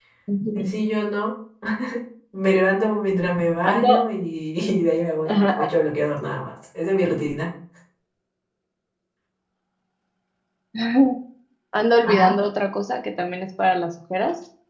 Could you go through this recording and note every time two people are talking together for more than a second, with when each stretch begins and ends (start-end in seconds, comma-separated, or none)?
none